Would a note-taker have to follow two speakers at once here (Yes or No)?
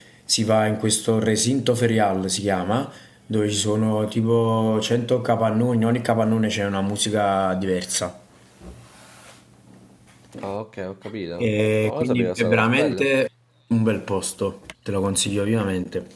Yes